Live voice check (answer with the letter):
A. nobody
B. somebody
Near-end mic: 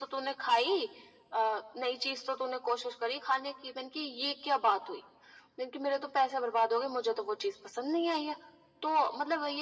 A